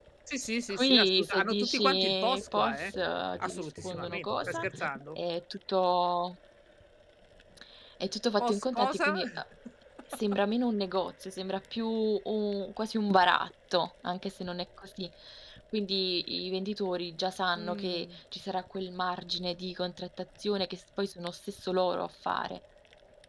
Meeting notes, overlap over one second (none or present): present